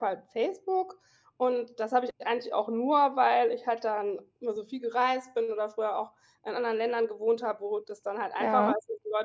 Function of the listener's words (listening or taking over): listening